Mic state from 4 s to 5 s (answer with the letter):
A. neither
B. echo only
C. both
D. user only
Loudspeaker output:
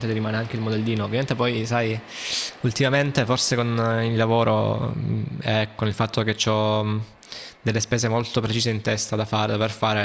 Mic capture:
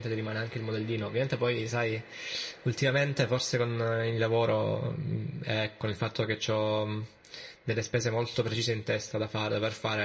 B